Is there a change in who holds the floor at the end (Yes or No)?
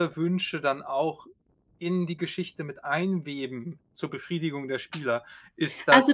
Yes